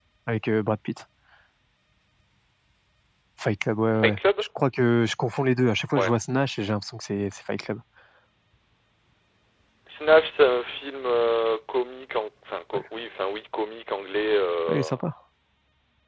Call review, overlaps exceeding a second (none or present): none